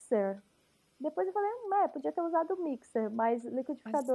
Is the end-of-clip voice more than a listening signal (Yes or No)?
No